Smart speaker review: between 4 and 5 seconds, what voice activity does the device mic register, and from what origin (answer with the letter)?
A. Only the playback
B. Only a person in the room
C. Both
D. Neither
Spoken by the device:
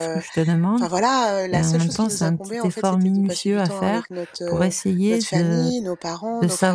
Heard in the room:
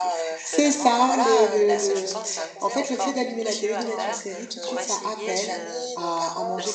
C